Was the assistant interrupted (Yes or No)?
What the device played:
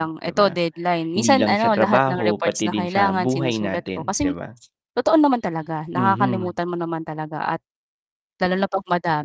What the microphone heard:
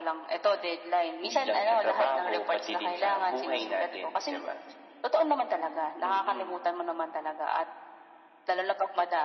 No